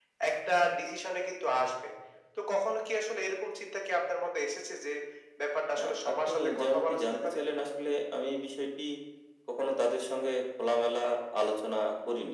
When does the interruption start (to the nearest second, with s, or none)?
6 s